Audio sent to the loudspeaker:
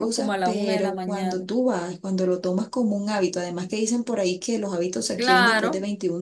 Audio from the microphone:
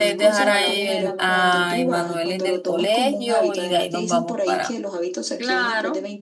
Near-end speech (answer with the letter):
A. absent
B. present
B